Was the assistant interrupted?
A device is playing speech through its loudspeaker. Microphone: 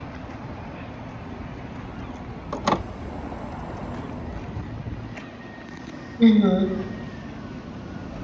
Yes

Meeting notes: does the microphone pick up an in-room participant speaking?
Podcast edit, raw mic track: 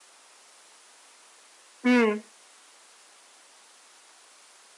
Yes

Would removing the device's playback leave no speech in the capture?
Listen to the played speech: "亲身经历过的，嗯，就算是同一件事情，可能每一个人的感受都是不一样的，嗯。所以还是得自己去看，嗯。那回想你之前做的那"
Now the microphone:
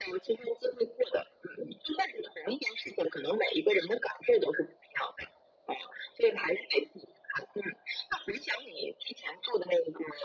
Yes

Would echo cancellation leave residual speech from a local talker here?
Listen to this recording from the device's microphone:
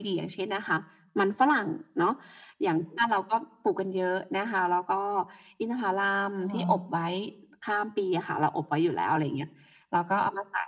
Yes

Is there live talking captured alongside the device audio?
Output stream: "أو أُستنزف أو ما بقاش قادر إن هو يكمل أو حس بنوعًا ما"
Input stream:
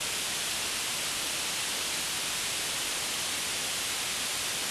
No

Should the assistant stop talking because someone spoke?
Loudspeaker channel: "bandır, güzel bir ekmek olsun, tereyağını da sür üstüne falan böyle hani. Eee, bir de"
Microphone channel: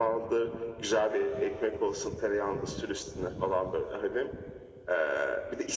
No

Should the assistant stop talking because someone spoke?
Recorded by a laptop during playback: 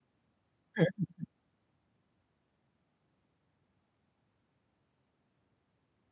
Yes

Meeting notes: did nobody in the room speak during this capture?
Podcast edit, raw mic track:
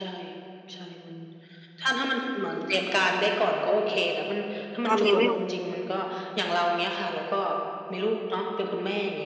No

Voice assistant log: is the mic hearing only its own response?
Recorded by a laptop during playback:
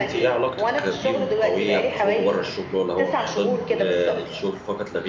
No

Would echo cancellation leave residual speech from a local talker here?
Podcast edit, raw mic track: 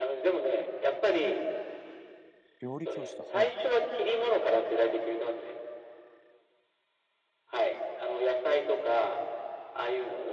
Yes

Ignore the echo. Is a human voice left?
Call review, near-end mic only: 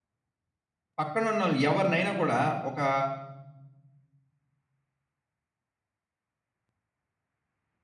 Yes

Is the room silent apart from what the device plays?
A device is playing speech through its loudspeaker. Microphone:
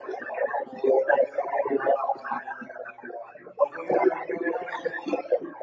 Yes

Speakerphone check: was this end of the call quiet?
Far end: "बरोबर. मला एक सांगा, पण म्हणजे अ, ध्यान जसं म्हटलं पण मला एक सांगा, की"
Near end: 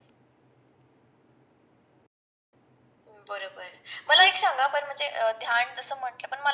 Yes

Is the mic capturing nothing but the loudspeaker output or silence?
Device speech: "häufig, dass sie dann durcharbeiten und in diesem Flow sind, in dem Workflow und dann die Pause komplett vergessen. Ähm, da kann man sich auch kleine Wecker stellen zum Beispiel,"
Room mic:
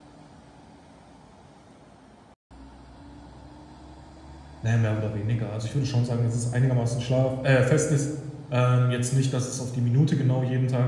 No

